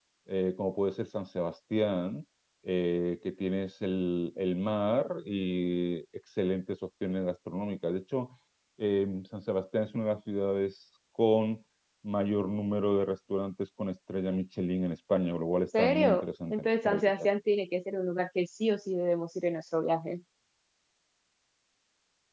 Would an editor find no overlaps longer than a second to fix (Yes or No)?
No